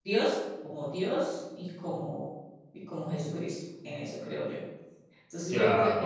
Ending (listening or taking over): listening